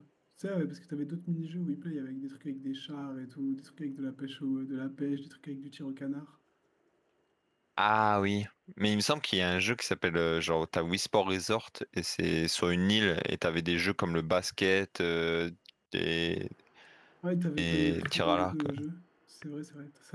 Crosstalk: present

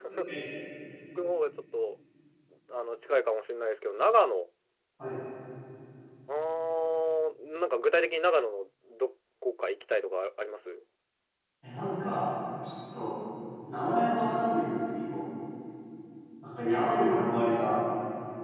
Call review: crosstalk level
none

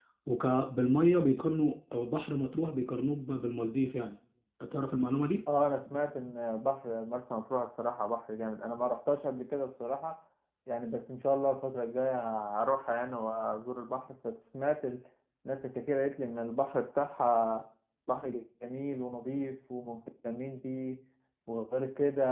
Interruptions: none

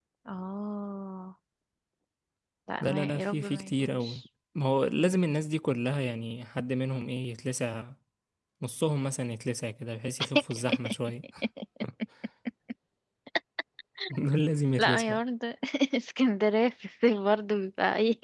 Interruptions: present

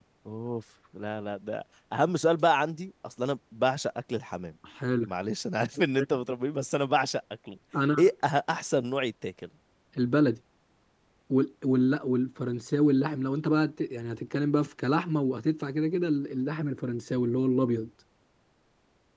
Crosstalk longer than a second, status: none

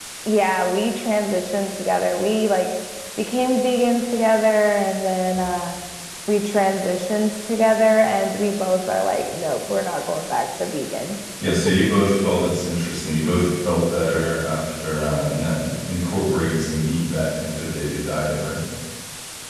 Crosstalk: none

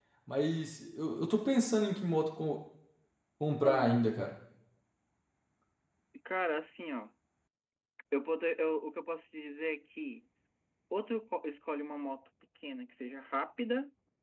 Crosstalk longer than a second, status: none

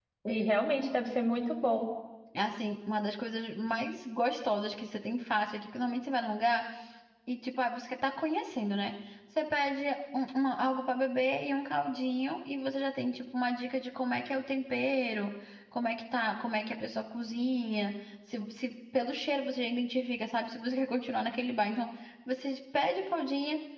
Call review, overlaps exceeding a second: none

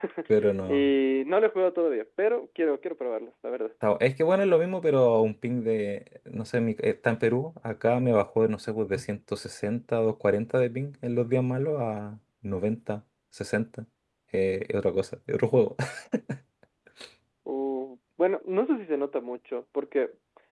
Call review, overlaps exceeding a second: none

